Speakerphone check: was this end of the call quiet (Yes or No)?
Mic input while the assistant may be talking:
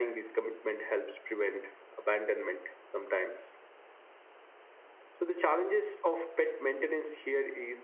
Yes